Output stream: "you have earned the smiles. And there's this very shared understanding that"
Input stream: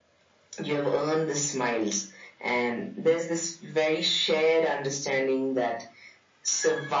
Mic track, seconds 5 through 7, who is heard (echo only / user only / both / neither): echo only